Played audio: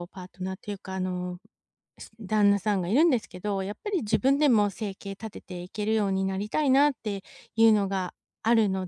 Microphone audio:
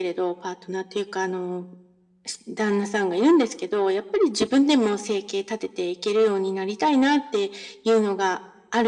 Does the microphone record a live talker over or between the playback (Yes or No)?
No